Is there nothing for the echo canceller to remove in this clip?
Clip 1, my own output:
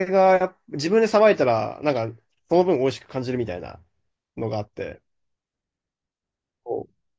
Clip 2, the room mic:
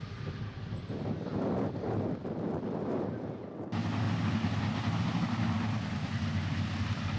Yes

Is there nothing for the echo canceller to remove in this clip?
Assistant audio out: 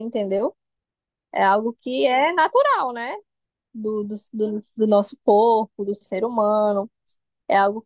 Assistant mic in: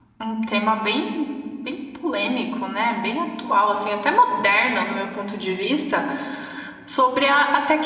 Yes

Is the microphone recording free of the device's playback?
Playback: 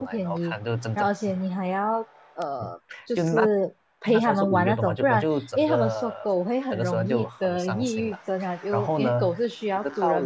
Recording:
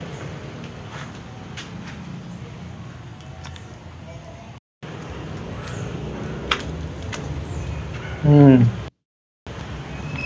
Yes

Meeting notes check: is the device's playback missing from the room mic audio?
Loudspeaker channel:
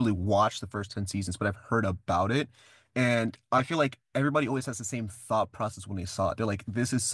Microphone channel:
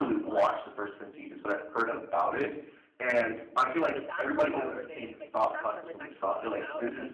No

